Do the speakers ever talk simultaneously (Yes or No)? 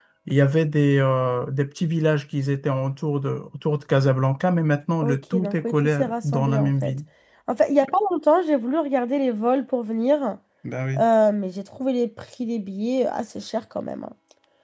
Yes